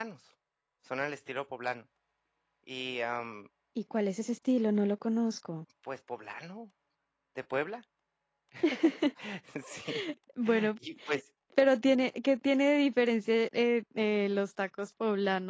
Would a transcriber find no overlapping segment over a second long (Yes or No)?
Yes